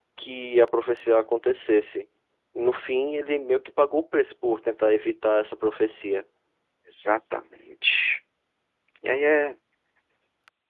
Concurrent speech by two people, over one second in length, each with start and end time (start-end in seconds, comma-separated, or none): none